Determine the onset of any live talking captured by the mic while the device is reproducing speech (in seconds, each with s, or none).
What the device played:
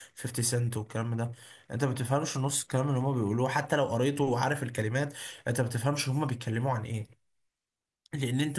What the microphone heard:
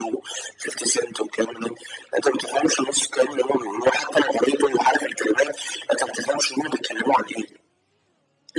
none